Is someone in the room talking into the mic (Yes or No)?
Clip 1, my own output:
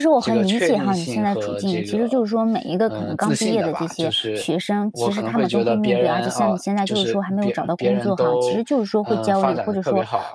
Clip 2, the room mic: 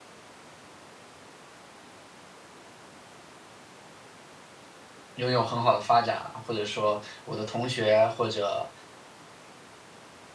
Yes